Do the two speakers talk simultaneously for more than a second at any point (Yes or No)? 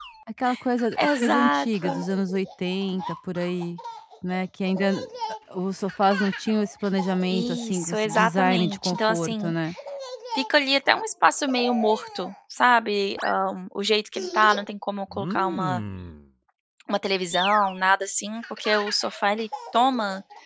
Yes